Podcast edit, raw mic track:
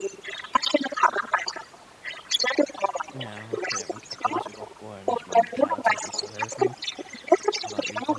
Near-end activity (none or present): present